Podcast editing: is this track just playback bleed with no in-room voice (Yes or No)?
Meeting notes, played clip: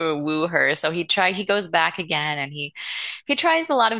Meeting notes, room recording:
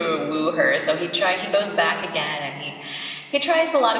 Yes